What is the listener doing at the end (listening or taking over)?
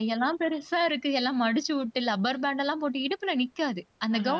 listening